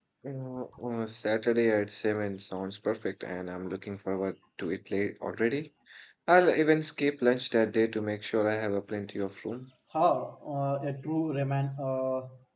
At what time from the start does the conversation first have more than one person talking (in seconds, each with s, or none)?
none